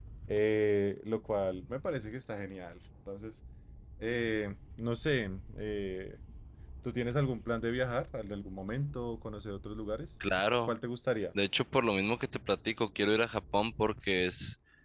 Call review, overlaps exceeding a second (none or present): none